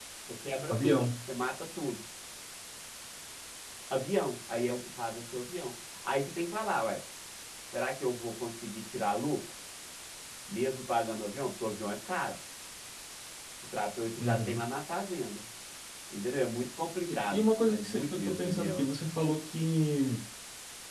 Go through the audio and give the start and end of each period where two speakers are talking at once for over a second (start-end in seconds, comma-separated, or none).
17.1-18.9